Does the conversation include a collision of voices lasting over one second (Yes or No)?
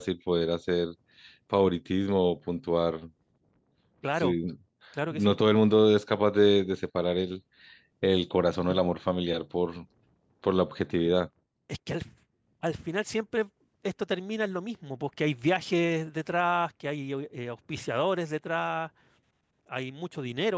No